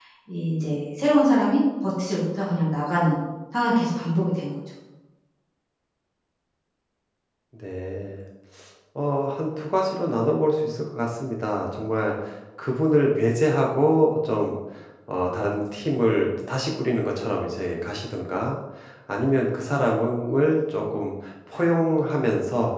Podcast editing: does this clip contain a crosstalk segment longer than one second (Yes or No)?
No